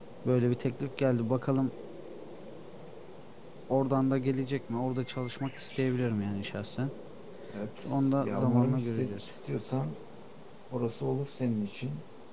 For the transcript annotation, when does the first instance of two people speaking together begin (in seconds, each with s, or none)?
7.8 s